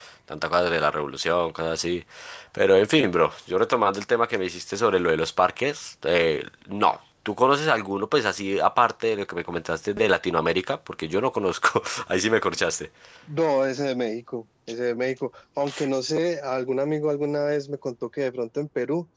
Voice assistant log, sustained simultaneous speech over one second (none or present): none